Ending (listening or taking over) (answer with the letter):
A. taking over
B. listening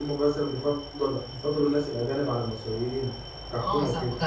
A